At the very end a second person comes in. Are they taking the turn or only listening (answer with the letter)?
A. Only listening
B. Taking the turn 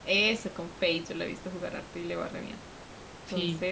A